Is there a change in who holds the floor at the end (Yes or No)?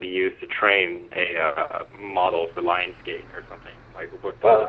Yes